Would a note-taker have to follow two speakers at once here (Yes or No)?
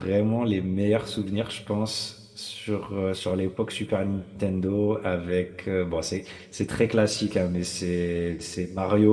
No